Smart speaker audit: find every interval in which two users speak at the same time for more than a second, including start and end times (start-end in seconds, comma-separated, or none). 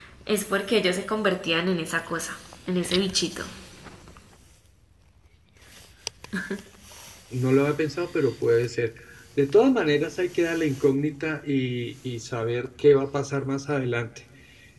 none